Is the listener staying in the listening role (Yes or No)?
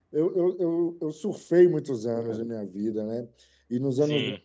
Yes